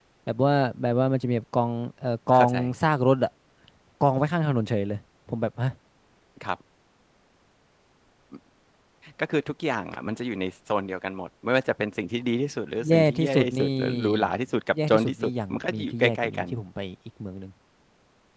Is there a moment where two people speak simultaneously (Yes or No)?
Yes